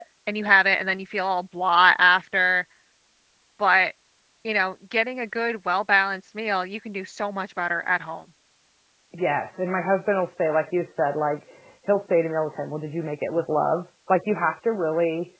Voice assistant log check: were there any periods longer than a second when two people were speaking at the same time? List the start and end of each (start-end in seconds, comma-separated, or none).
none